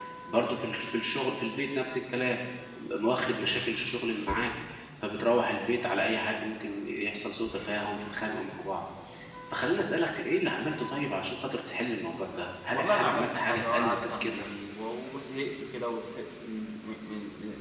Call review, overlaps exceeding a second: present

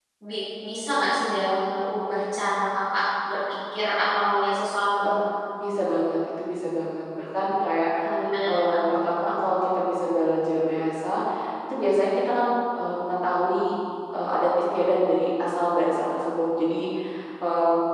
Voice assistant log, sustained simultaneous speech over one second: none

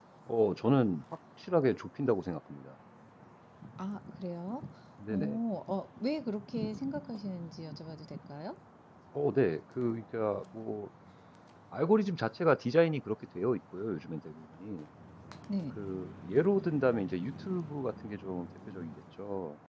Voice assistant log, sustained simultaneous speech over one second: none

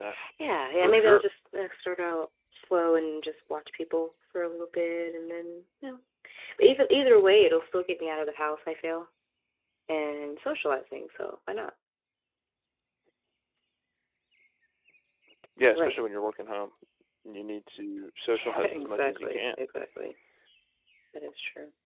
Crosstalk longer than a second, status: present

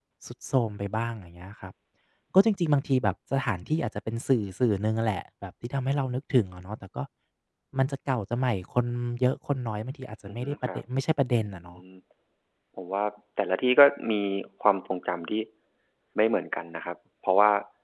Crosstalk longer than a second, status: none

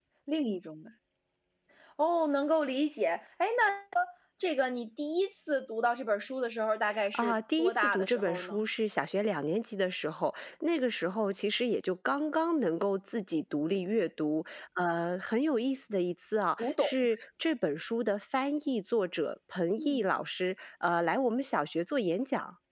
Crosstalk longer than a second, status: present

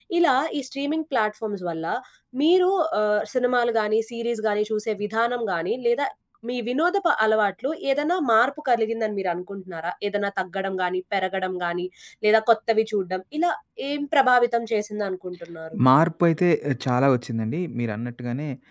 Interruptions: none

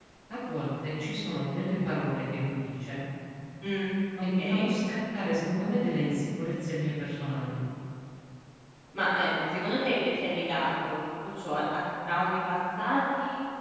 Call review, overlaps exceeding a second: none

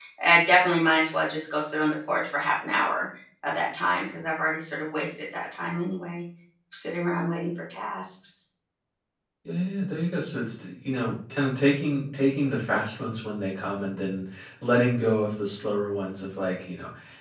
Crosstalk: none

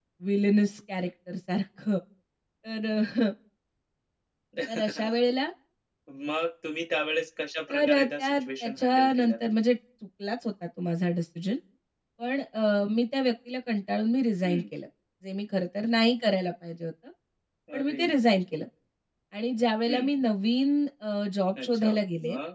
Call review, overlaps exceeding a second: present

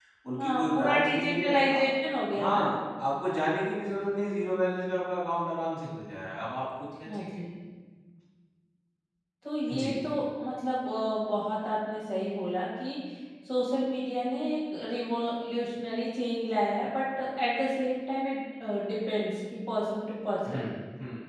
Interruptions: present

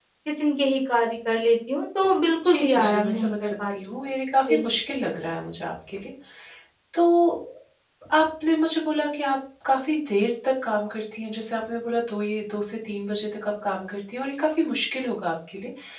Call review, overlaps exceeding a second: present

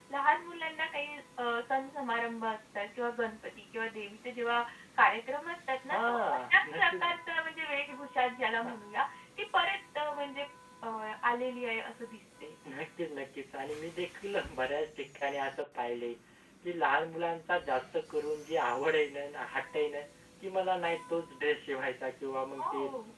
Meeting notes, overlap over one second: present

